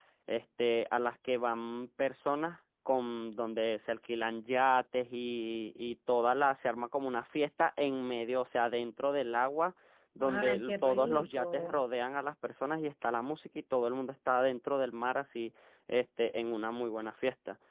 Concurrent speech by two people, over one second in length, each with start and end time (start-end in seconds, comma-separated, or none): 10.2-11.8